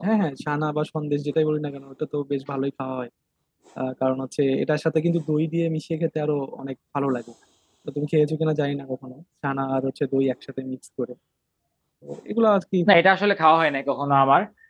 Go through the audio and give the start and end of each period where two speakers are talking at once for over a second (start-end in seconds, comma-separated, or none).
none